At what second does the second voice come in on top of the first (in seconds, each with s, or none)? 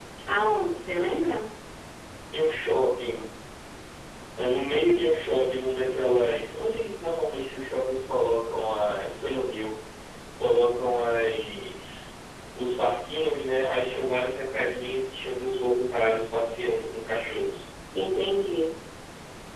none